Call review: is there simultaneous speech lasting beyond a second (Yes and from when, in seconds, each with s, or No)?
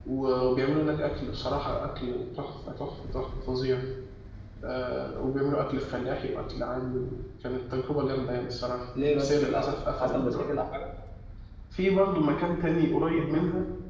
Yes, from 8.9 s